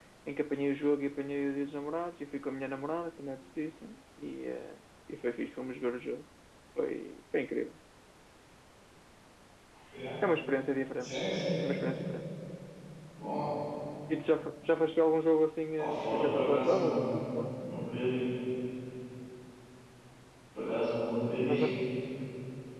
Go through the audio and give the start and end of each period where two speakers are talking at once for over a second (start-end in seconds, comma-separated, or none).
15.8-17.0